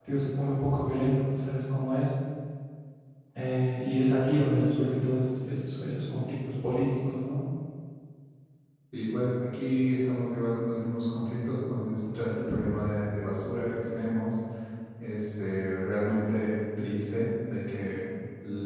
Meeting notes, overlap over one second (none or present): none